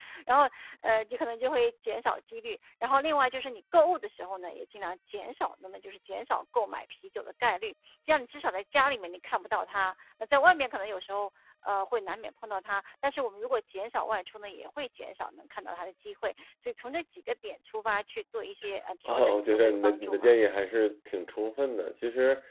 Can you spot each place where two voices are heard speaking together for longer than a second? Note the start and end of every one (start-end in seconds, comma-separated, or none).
19.1-20.3